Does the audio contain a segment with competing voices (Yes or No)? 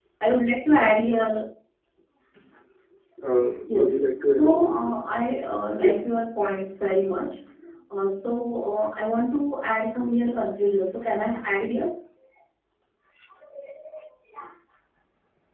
Yes